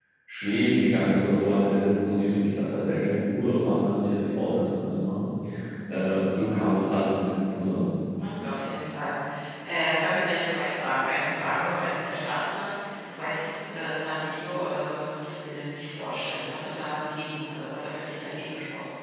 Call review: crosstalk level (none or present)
none